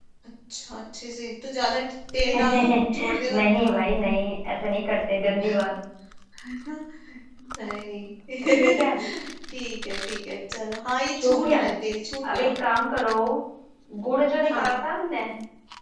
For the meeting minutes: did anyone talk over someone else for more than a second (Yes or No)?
Yes